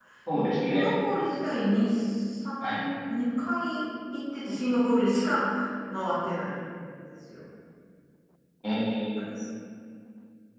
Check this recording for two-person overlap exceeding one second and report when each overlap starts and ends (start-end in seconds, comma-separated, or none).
none